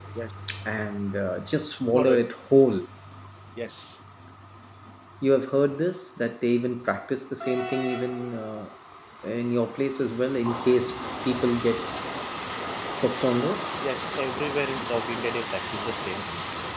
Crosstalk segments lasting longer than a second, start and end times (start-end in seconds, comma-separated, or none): none